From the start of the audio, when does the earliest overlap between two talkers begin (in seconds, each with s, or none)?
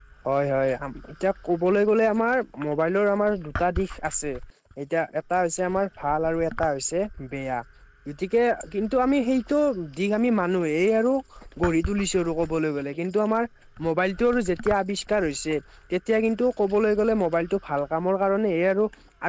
none